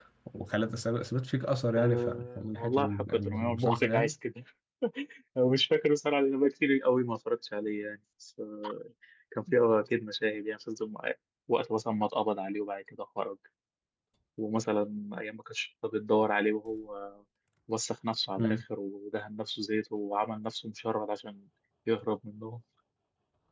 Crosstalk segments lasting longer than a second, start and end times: 1.8-4.1

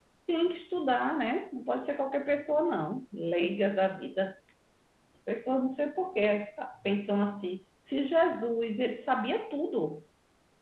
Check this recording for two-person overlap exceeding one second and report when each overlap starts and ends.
none

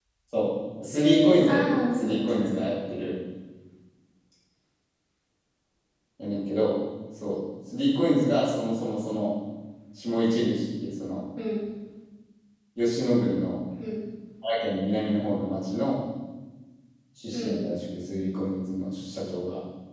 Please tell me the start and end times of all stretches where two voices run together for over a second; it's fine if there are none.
1.0-2.6

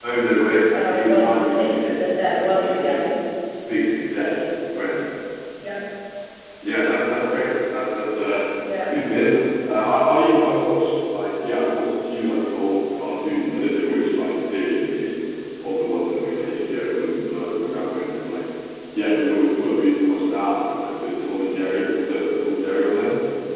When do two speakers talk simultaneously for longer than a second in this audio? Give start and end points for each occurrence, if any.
0.8-2.9

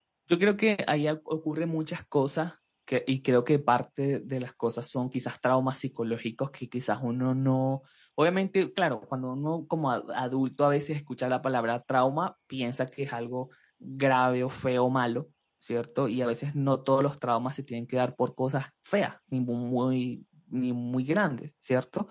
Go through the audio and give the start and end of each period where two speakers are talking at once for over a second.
none

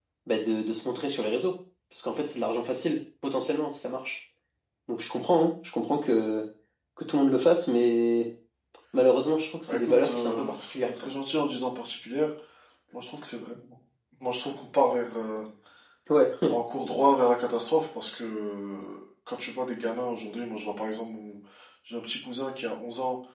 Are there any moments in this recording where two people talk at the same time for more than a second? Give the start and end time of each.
9.7-10.9

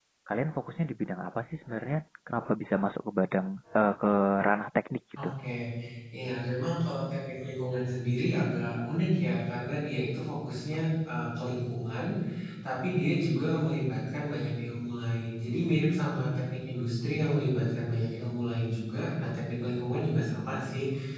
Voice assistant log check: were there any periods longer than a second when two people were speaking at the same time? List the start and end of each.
none

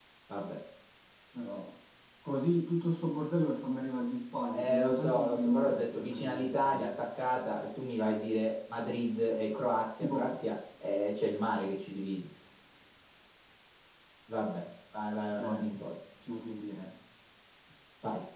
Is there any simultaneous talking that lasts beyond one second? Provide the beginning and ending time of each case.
4.5-7.0

